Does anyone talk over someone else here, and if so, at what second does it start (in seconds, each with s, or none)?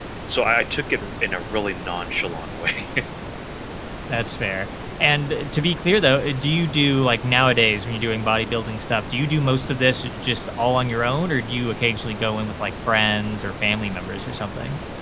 none